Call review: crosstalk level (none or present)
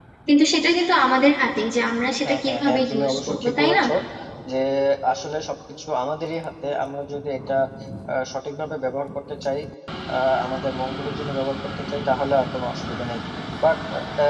present